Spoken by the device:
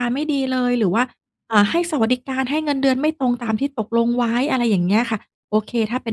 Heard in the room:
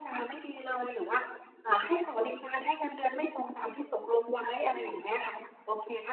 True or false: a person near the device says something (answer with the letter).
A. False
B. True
B